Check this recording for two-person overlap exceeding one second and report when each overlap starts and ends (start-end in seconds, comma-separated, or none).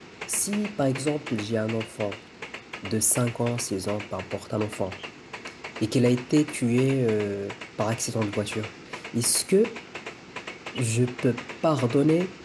none